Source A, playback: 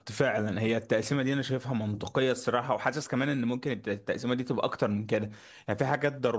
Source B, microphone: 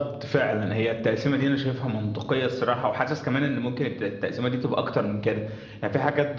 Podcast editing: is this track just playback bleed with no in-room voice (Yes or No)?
Yes